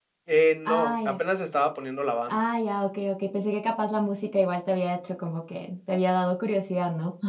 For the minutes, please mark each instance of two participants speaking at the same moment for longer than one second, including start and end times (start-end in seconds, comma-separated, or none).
none